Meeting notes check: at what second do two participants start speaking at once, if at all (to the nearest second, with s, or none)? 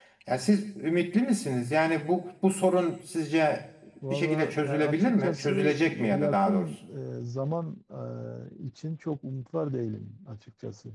4 s